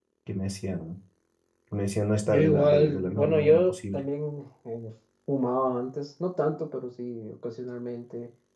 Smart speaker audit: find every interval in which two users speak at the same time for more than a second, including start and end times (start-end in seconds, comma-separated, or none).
2.3-4.0